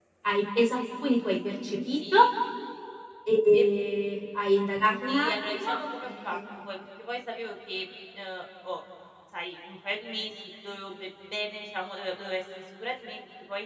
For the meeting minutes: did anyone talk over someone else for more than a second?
Yes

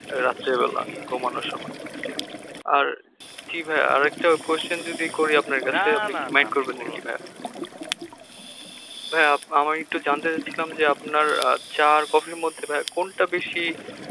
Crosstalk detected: Yes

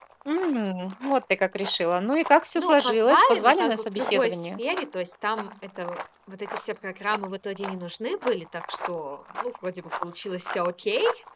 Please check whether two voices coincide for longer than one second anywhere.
Yes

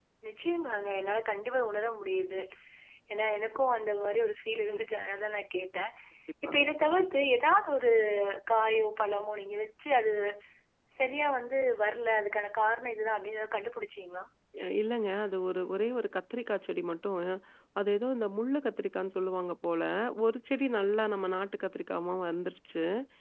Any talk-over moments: No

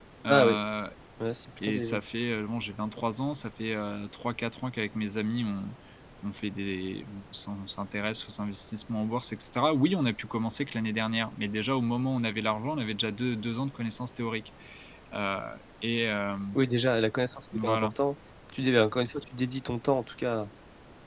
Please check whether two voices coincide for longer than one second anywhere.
No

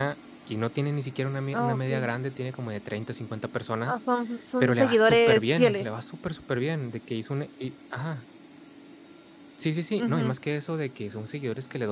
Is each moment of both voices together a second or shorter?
No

